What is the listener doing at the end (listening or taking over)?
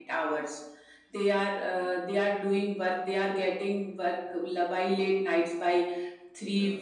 listening